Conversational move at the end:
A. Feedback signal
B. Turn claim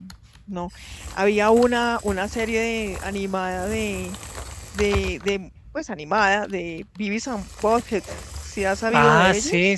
B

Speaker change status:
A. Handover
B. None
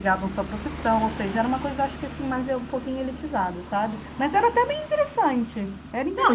A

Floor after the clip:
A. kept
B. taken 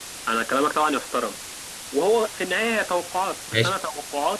A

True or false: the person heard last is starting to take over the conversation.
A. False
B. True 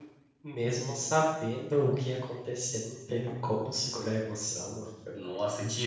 B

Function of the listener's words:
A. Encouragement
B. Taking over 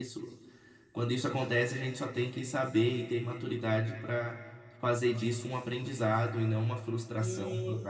B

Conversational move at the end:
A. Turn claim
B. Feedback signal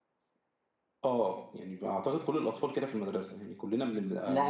A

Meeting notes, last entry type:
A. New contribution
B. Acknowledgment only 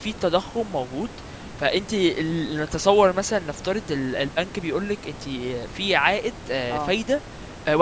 B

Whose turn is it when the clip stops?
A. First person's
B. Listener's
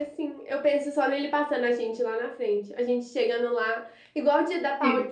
A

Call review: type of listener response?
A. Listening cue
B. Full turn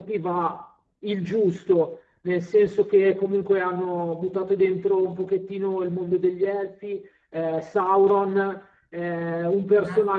A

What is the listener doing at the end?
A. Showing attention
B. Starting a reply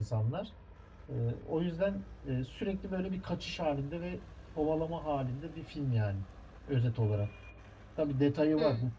A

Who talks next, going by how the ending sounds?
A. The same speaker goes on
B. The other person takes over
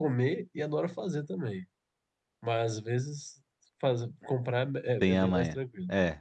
B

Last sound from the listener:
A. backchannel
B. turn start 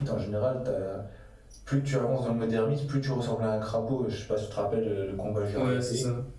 B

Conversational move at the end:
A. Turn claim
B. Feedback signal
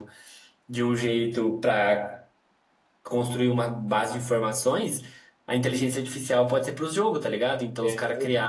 B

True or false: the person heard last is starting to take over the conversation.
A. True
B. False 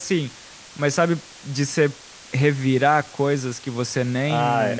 A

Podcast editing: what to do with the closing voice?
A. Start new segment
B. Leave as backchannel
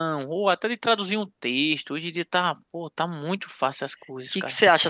A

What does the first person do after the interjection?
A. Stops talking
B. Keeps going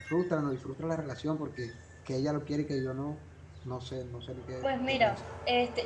A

